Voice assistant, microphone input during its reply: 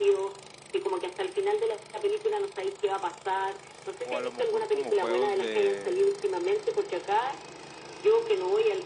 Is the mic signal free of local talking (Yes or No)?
No